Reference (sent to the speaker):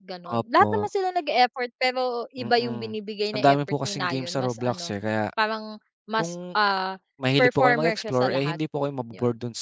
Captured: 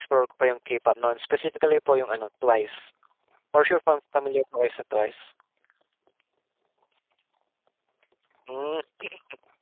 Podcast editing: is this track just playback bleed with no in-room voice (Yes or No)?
No